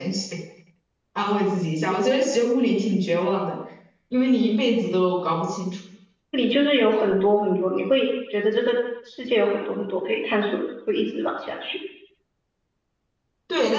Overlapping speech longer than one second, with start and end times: none

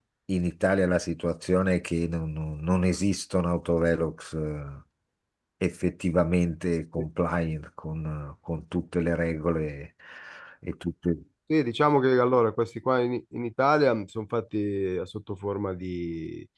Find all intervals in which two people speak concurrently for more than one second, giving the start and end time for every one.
none

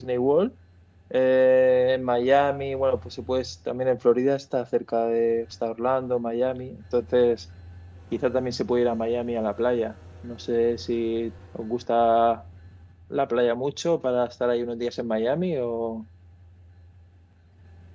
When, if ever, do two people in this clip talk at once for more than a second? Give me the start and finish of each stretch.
none

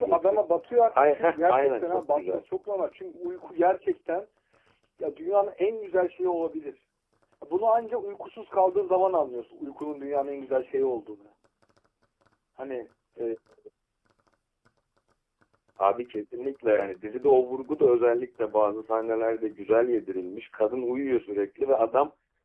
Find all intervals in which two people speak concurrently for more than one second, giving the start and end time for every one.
0.9-2.4

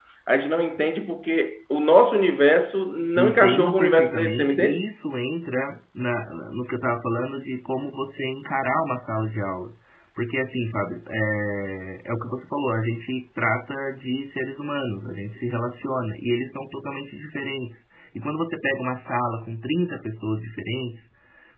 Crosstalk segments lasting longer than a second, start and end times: 3.2-4.8

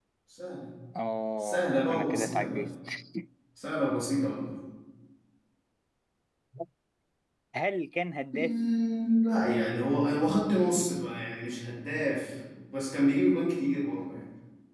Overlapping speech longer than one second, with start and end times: 1.4-2.7

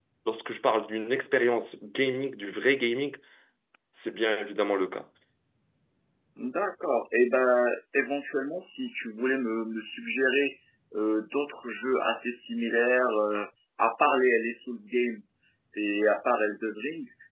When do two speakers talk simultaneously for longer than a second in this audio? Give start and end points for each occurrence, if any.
none

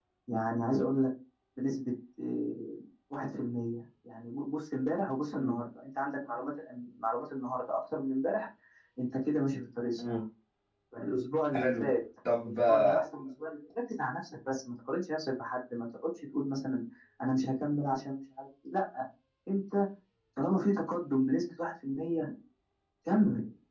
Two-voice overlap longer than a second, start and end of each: none

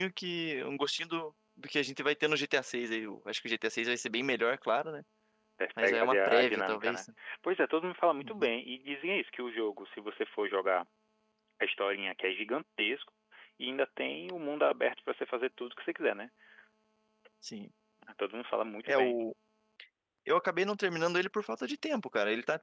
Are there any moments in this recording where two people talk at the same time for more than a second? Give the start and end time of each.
5.8-7.0

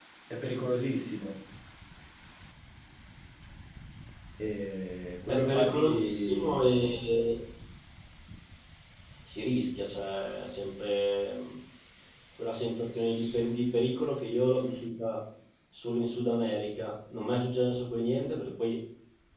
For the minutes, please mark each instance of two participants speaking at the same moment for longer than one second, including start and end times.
5.3-6.6

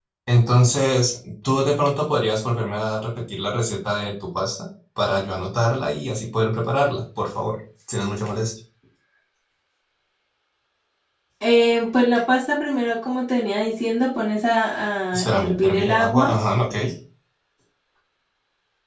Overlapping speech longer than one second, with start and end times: 15.2-16.4

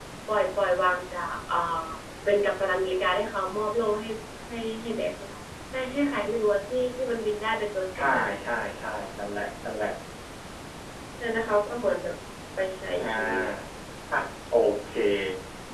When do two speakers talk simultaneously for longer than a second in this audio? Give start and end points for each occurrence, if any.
none

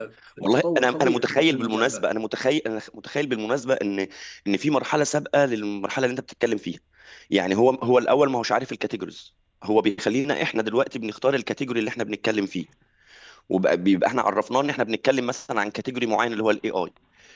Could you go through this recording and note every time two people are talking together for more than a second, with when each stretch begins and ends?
0.5-2.0

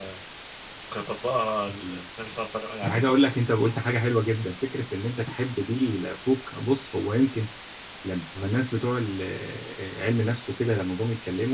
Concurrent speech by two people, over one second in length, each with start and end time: none

